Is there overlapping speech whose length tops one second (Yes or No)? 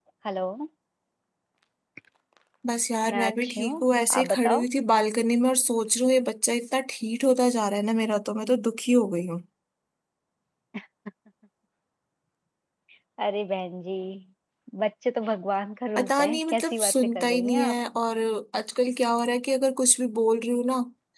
Yes